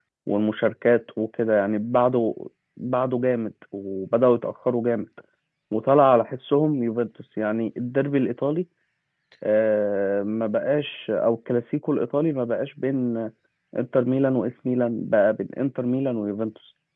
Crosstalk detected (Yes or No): No